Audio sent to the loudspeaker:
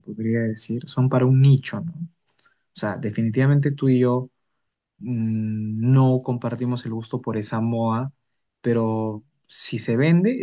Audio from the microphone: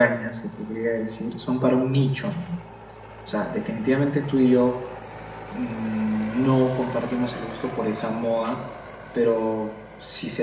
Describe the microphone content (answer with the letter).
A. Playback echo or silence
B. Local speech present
A